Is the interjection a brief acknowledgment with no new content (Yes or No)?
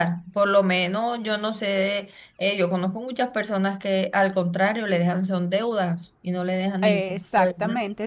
No